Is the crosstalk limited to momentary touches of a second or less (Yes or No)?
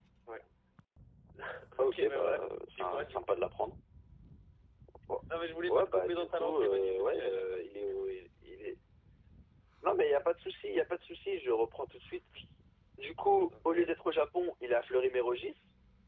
No